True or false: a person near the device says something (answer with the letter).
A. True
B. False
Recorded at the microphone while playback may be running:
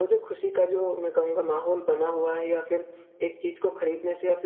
B